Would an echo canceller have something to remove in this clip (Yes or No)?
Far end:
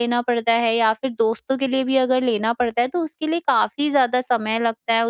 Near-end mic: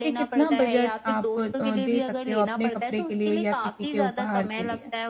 Yes